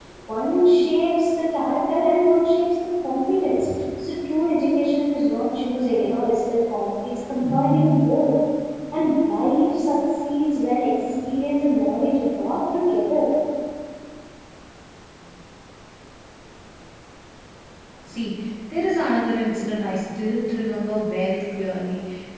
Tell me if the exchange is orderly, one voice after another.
Yes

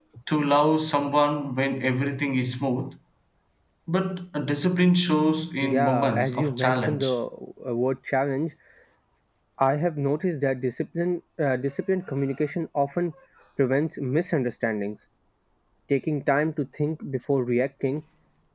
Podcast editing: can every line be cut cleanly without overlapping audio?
No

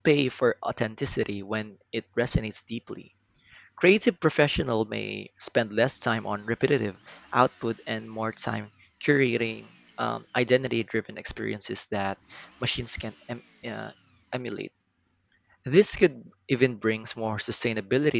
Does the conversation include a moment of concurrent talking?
No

